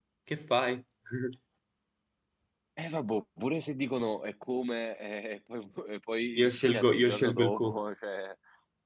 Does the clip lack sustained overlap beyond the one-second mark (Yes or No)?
No